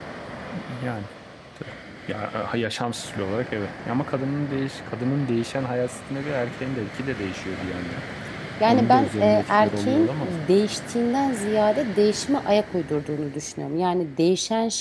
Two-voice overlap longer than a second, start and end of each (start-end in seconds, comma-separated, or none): 8.7-10.3